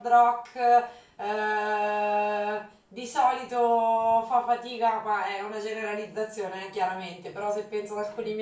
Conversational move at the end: listening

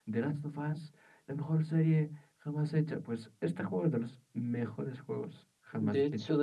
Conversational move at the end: taking over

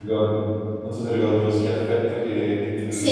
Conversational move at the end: taking over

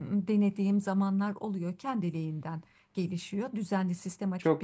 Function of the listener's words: listening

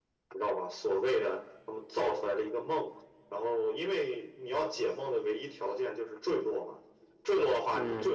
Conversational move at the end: listening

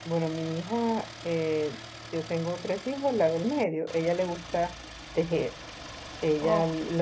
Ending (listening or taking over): listening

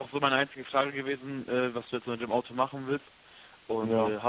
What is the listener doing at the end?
listening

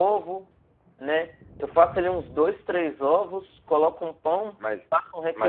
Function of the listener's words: taking over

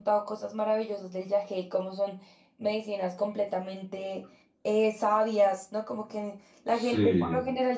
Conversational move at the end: listening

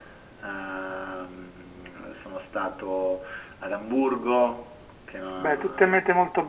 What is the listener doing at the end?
taking over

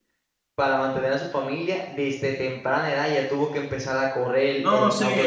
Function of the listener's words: taking over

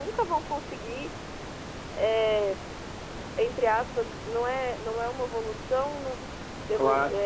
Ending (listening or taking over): listening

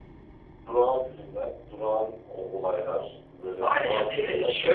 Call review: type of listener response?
taking over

